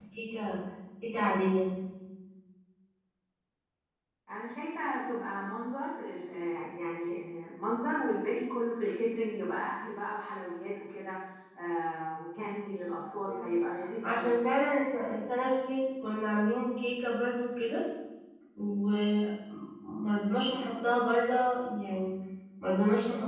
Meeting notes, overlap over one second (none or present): none